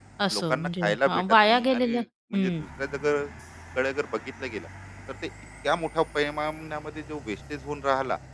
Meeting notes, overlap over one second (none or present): present